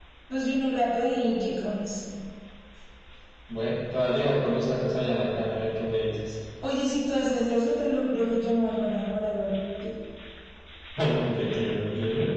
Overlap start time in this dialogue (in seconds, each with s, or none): none